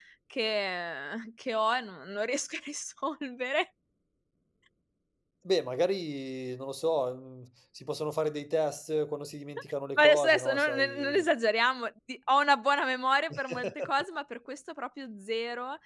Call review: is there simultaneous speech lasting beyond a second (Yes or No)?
Yes